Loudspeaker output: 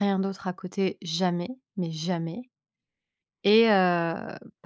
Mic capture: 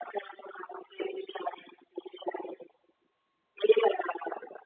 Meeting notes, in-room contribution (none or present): none